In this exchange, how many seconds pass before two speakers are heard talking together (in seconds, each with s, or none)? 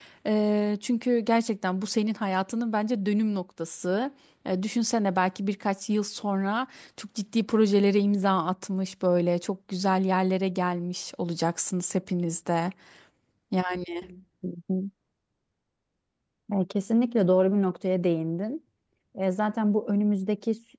none